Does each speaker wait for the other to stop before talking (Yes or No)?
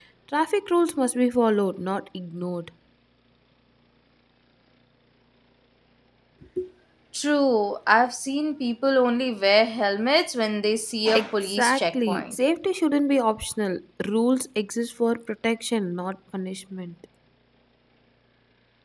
No